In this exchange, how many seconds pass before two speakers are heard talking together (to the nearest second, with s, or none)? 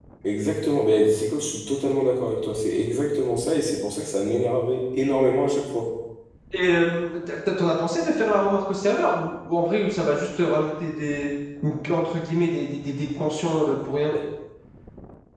none